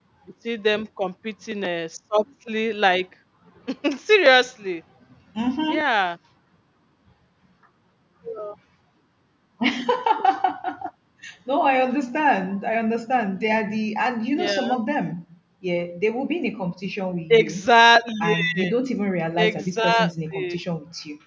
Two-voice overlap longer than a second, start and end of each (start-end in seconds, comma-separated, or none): 19.4-20.6